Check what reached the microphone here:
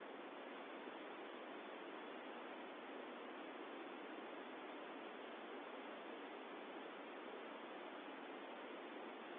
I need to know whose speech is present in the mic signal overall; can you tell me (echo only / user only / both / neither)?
neither